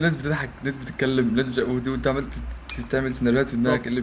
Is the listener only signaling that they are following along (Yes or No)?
No